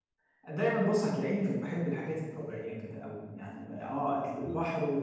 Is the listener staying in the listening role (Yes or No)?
Yes